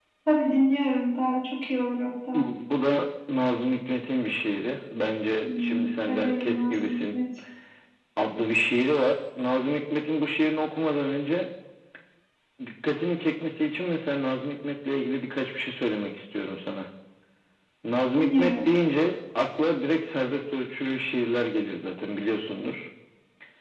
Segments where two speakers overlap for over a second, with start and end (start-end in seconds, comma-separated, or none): 5.4-7.2